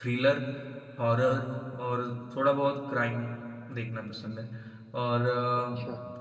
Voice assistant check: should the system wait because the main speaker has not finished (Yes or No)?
Yes